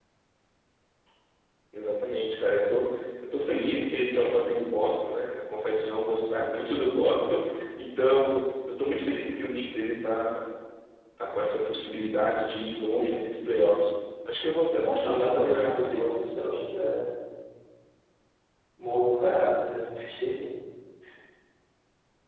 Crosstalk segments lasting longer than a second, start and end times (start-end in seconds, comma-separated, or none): 14.7-16.1